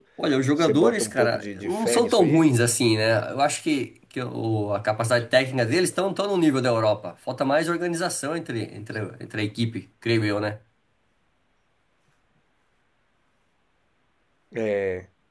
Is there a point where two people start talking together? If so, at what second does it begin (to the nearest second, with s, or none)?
1 s